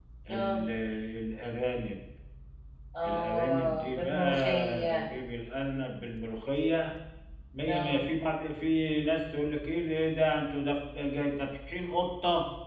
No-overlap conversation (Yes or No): No